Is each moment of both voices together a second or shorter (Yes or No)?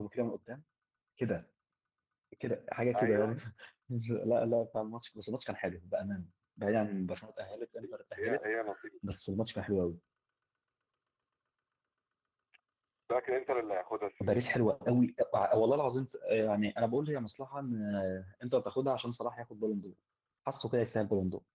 Yes